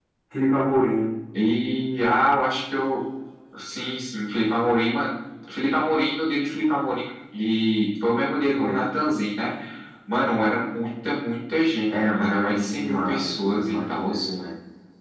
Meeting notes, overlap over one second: present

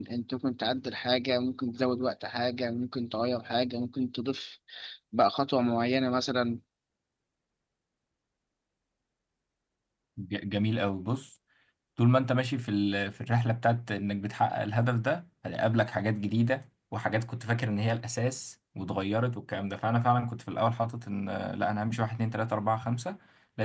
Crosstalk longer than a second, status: none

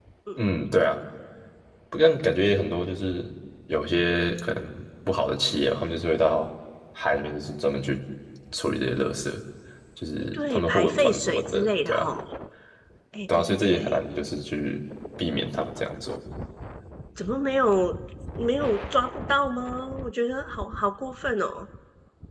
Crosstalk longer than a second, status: present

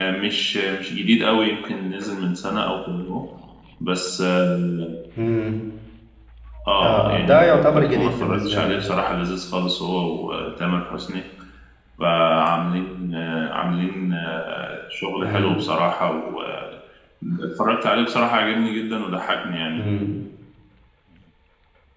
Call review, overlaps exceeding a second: present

